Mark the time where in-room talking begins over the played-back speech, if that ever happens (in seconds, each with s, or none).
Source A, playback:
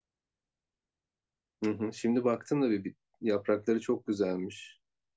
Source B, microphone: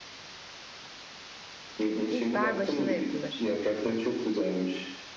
2.1 s